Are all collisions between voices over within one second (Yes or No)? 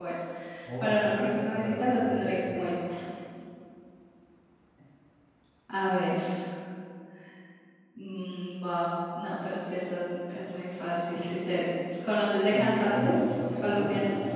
No